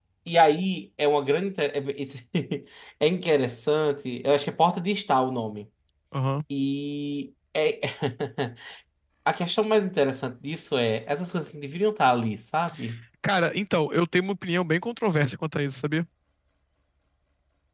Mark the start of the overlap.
none

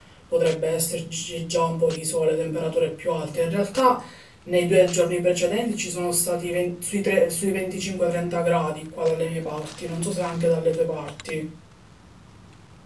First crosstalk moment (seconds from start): none

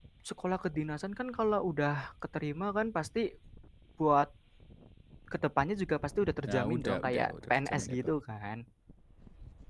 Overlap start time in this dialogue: 6 s

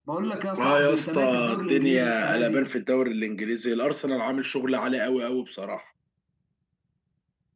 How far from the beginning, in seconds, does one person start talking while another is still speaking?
1 s

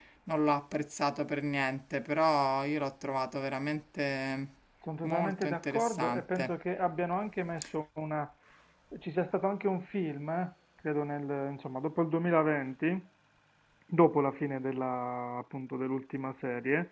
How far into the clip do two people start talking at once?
5 s

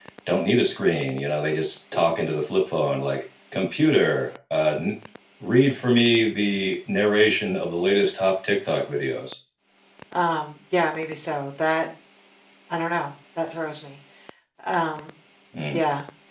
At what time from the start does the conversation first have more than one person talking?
none

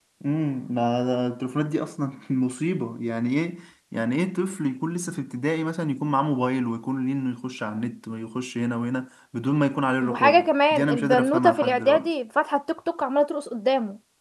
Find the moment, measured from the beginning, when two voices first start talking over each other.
10 s

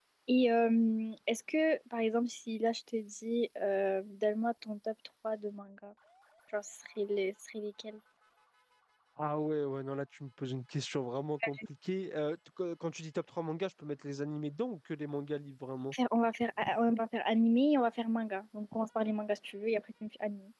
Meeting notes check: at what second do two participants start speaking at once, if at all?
none

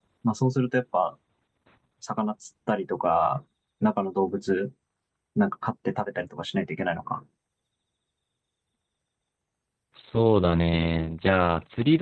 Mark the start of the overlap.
none

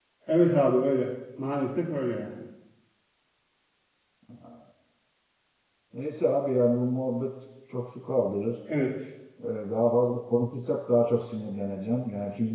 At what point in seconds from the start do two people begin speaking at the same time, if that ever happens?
none

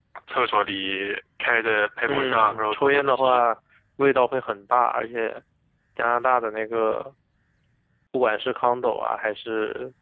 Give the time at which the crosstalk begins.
2 s

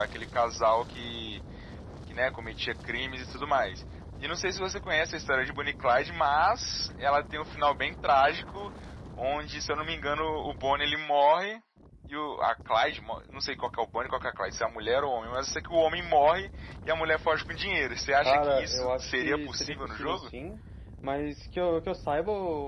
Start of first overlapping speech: 18 s

